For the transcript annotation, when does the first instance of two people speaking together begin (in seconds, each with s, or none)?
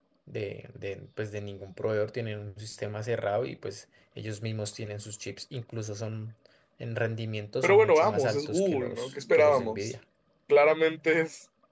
7.6 s